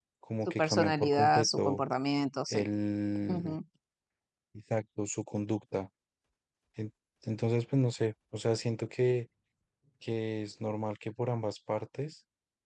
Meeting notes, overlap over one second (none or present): present